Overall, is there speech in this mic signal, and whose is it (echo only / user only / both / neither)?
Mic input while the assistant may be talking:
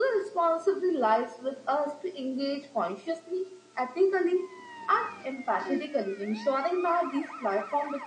echo only